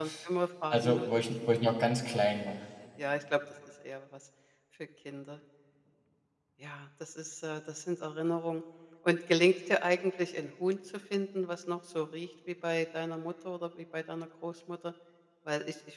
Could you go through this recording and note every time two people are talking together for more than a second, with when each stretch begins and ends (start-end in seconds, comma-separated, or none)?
none